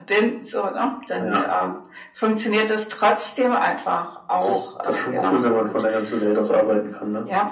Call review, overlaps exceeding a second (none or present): present